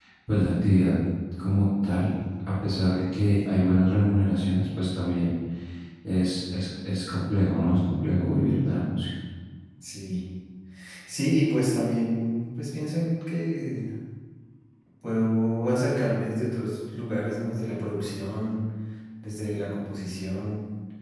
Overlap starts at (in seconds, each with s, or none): none